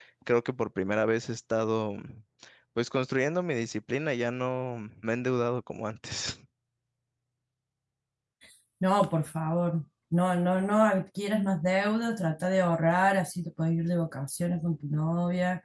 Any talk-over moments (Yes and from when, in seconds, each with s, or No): No